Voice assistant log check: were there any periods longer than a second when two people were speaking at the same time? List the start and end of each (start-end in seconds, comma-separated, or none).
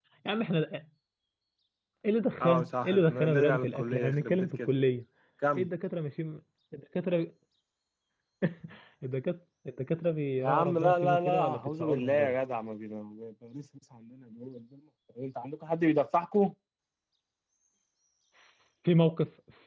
2.4-4.7, 10.4-12.3